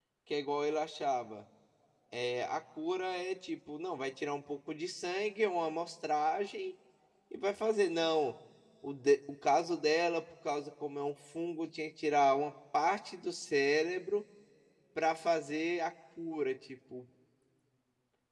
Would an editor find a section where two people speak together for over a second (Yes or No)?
No